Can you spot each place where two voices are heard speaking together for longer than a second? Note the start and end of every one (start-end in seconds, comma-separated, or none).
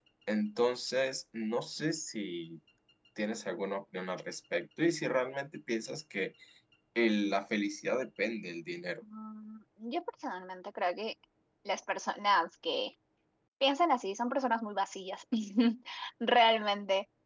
none